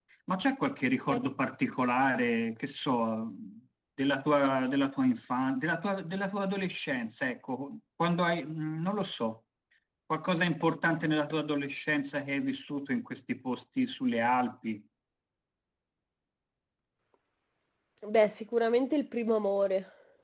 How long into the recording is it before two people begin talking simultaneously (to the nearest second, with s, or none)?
none